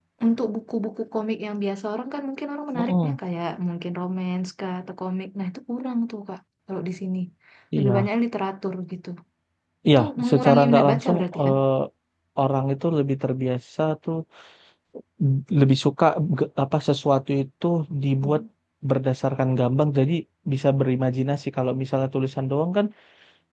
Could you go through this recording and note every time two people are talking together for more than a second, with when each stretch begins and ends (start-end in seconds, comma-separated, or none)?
10.0-11.6